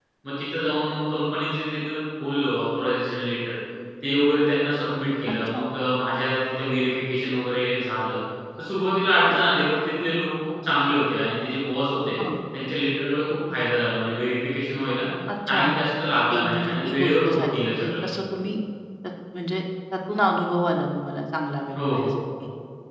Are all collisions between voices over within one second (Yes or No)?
No